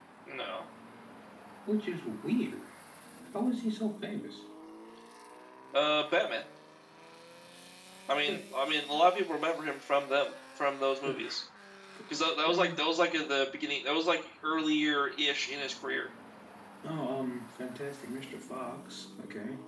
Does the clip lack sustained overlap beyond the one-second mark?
Yes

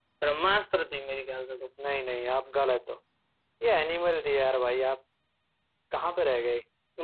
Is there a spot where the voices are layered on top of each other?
No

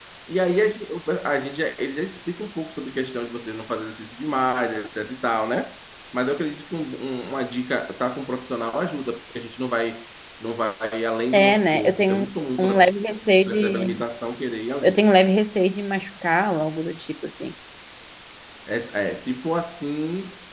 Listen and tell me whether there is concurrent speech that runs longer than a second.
Yes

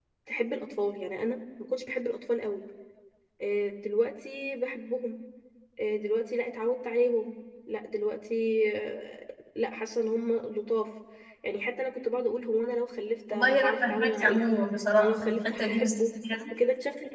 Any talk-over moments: Yes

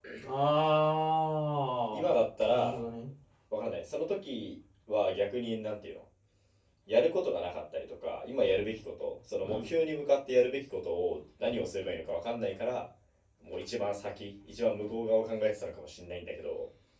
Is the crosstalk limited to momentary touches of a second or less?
Yes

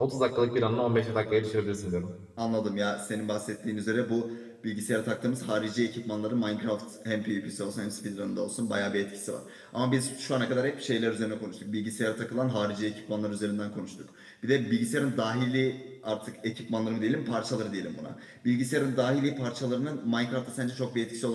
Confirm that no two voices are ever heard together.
Yes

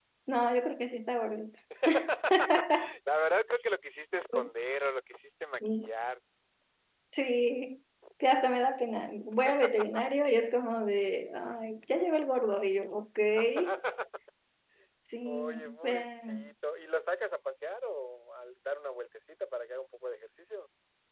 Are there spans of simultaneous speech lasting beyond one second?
Yes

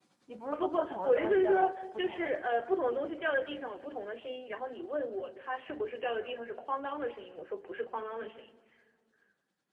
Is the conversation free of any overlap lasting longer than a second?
No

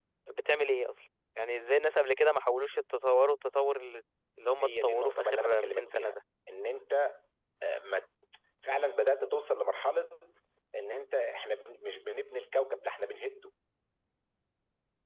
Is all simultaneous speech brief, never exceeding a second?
No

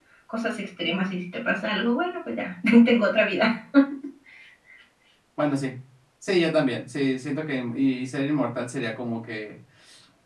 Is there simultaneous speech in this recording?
No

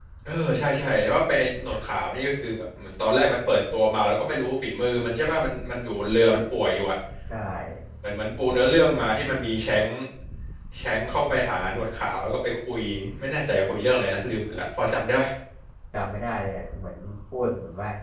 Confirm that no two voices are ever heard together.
Yes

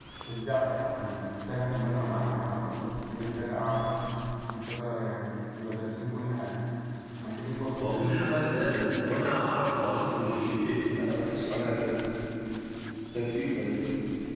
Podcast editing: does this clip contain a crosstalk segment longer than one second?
Yes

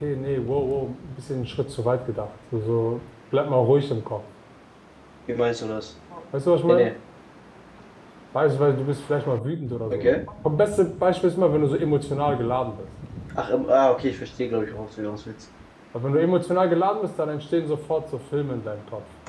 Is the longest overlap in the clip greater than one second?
No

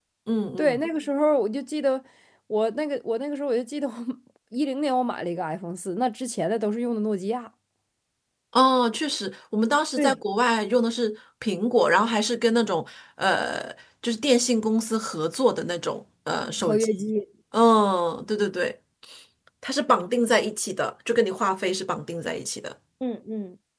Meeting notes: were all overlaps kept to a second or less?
Yes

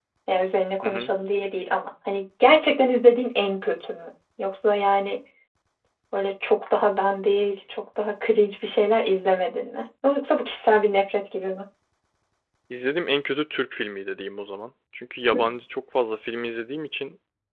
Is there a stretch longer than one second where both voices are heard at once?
No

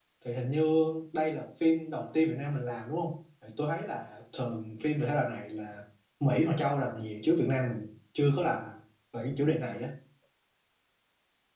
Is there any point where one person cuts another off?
No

